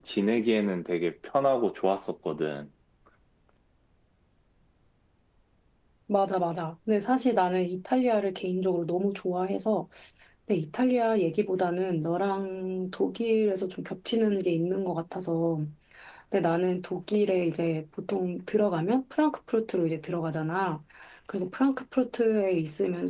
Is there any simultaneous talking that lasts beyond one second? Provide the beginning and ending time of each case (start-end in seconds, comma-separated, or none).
none